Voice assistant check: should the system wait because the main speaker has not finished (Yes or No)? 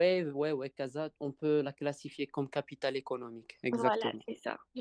No